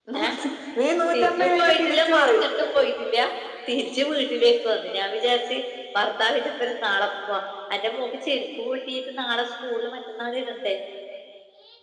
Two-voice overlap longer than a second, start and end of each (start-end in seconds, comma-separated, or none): 1.1-2.4